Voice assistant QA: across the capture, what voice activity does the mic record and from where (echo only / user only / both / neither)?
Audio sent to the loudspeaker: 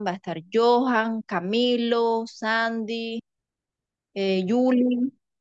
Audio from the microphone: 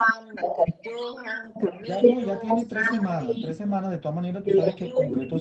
both